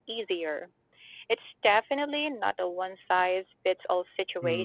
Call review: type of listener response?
taking over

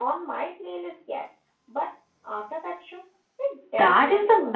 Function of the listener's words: taking over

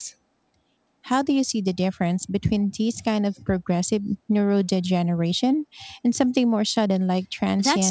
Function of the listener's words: taking over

